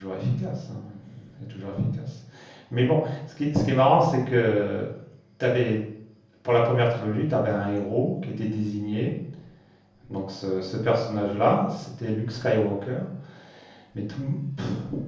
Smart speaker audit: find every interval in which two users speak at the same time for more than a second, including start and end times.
none

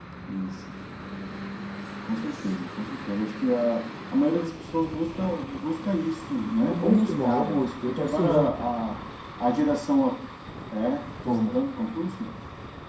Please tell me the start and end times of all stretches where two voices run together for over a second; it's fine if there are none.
6.6-8.6

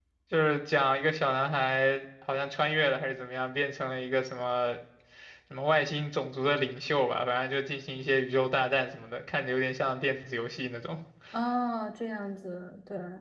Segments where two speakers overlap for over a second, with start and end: none

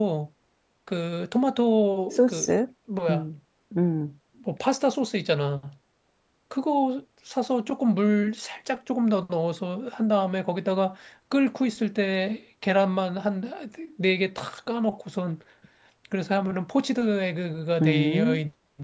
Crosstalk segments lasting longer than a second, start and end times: none

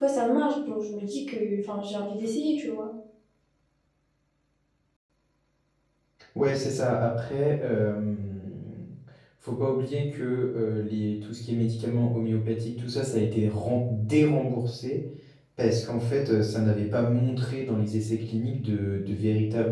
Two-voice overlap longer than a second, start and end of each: none

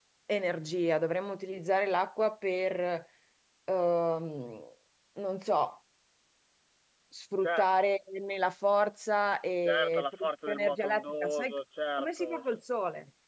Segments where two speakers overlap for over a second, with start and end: 9.6-11.5

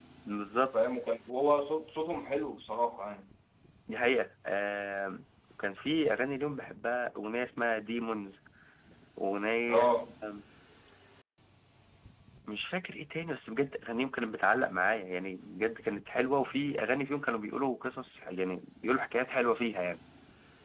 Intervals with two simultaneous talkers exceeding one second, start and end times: none

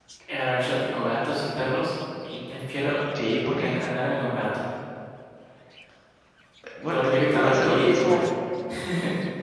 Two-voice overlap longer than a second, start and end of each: 6.8-8.2

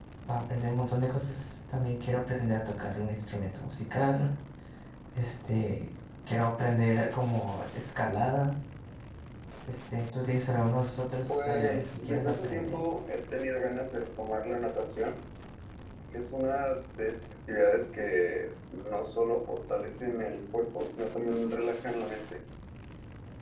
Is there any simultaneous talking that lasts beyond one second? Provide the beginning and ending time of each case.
11.3-12.8

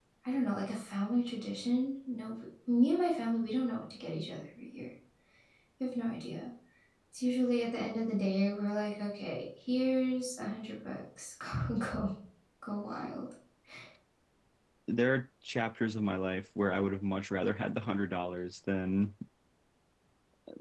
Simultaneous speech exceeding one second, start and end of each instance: none

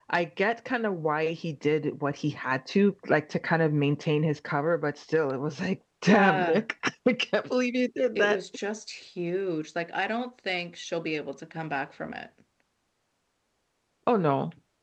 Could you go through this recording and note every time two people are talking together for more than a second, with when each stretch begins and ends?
none

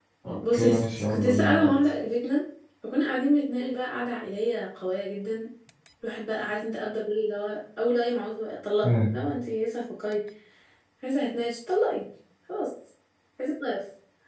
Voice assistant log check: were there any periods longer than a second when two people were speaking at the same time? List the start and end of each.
0.5-1.7

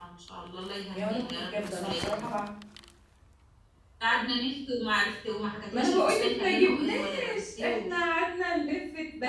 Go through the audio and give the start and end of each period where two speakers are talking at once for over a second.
0.9-2.3, 5.7-8.0

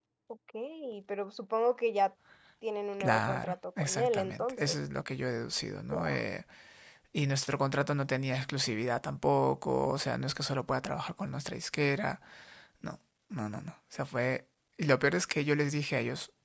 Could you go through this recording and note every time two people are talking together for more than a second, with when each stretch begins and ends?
3.0-4.8

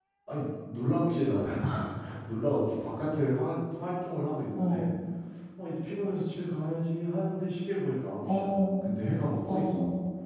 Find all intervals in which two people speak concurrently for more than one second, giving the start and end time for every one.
none

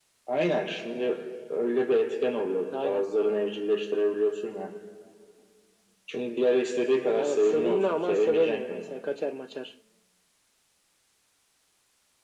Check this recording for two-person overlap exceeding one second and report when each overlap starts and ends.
7.2-8.9

